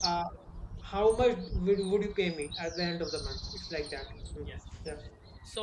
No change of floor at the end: No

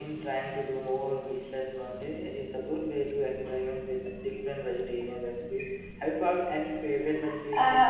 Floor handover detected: Yes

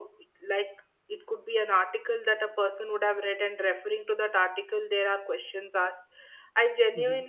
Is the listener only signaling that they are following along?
Yes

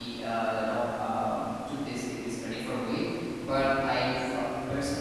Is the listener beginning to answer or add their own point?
No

